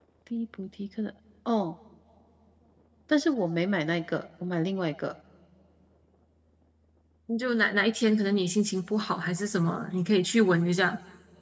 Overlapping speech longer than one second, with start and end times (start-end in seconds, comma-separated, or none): none